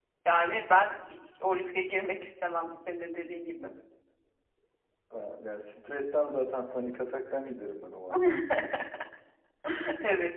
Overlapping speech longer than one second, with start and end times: none

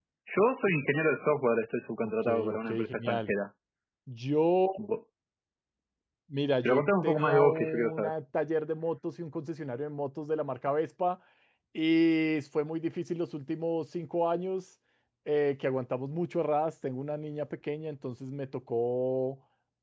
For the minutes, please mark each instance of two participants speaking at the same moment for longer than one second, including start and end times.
2.0-3.3, 6.6-8.1

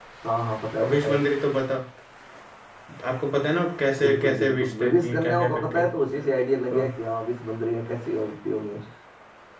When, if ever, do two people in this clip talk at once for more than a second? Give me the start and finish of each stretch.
4.0-5.8

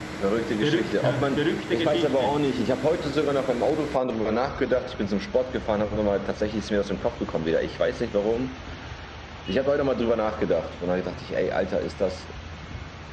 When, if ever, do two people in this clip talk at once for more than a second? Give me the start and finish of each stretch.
0.5-2.4

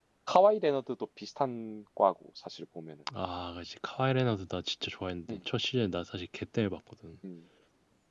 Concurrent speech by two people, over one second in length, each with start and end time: none

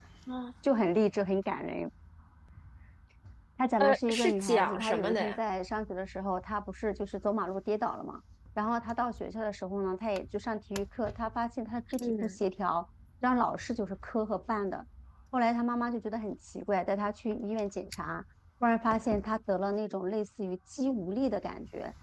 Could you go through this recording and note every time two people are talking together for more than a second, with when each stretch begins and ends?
3.8-5.4

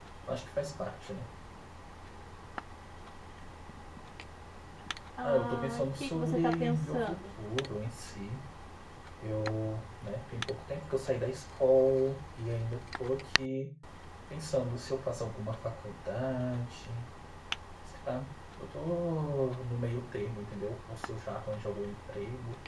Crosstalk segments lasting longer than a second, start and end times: 5.2-7.2

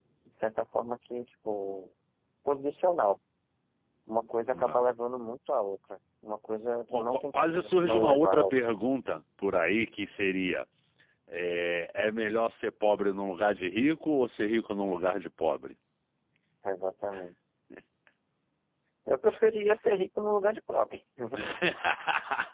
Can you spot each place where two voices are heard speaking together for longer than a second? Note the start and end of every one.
6.9-8.5

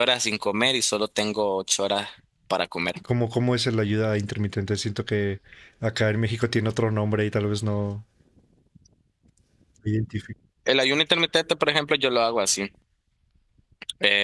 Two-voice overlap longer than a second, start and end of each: none

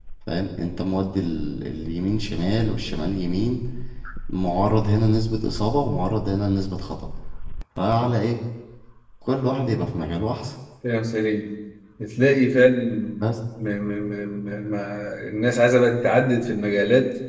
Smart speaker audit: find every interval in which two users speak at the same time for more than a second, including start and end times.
none

